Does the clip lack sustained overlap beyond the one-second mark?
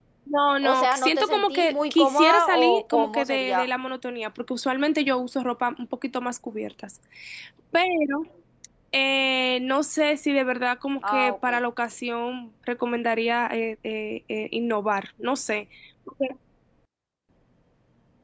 No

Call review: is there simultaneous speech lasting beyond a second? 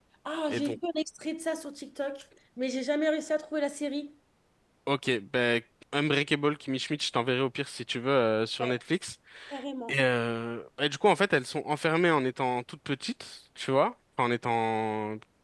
No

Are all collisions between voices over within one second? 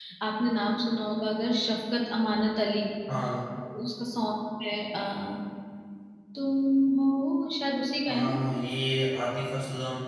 Yes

